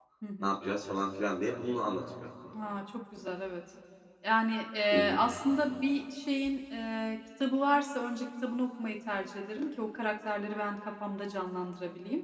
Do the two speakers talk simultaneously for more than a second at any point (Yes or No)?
No